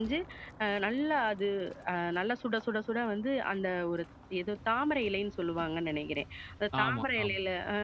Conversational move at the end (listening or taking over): listening